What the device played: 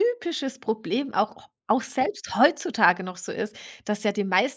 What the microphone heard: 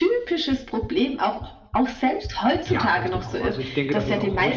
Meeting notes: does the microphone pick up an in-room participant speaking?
Yes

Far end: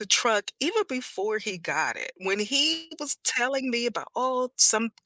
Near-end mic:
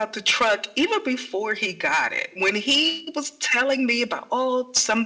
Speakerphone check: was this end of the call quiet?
Yes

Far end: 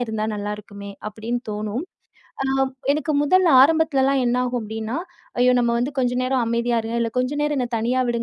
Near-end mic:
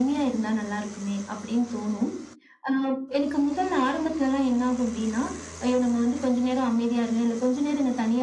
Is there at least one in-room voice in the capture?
No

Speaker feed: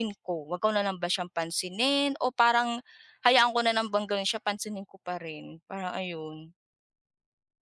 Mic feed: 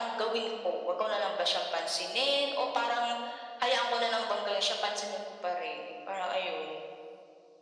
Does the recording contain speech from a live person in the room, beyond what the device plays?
No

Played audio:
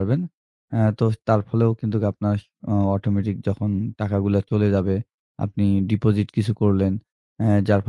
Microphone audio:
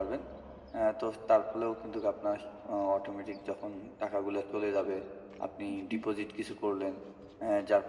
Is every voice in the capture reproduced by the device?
No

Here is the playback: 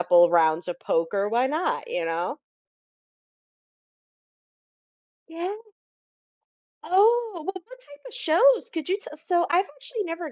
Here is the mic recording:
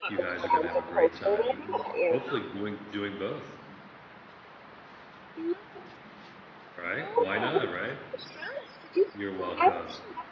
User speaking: Yes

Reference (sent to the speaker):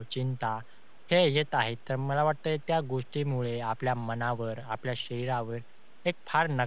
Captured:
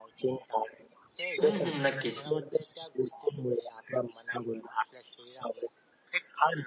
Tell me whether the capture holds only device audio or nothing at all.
No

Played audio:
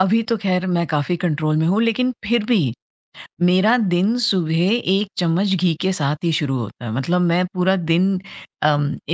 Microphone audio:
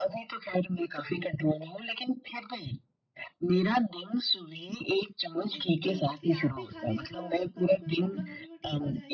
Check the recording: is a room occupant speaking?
Yes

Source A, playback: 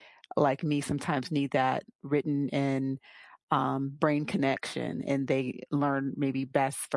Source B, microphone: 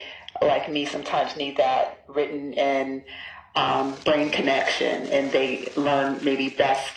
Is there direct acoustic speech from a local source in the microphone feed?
No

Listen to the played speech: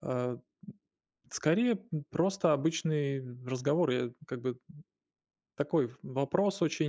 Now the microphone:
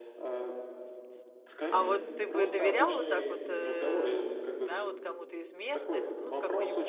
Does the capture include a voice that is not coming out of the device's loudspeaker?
Yes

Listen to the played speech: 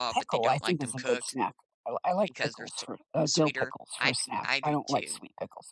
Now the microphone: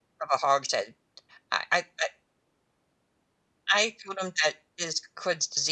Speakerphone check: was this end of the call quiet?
No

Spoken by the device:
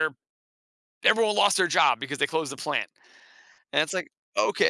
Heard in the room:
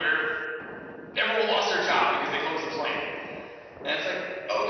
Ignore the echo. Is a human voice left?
No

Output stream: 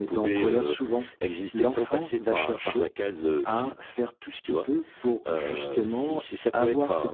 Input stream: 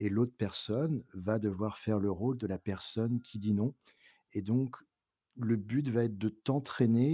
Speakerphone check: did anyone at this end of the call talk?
Yes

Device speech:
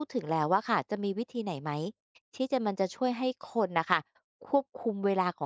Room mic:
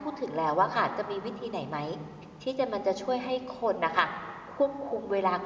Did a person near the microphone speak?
No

